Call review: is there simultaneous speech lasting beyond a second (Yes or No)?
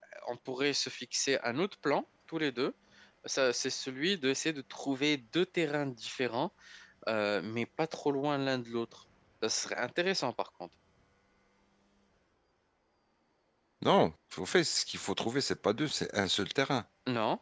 No